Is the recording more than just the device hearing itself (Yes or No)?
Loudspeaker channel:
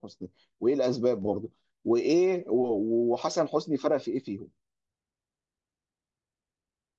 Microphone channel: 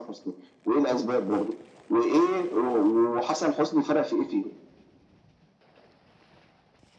No